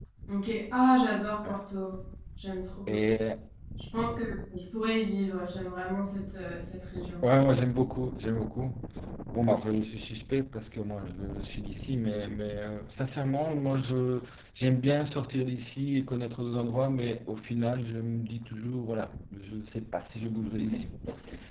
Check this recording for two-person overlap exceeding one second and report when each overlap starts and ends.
none

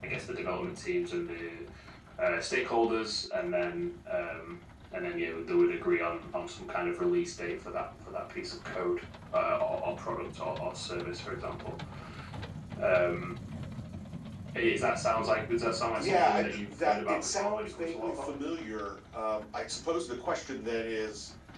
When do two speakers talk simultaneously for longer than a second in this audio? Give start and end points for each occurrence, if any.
15.6-18.4

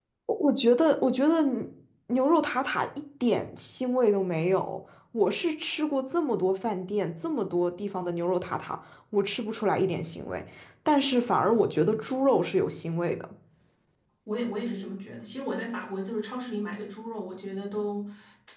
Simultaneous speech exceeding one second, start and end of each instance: none

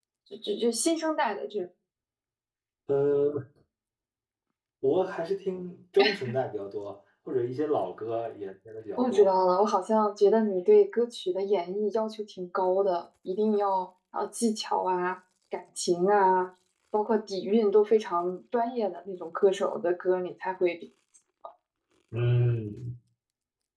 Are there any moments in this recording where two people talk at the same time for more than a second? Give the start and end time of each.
none

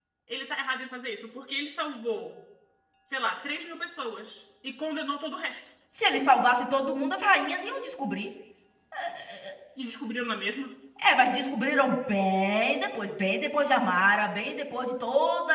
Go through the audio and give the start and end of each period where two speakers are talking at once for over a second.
none

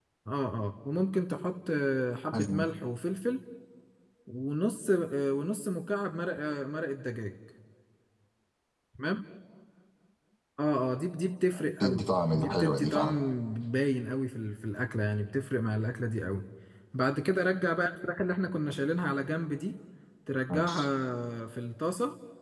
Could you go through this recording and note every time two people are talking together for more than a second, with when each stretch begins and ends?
11.7-13.2

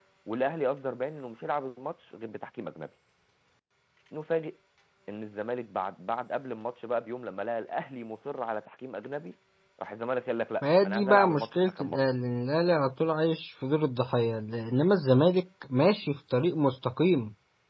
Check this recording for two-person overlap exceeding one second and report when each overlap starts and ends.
10.6-12.0

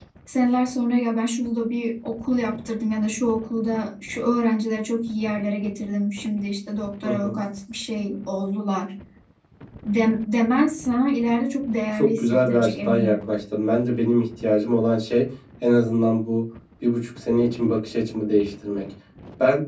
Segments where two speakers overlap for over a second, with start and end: 11.9-13.3

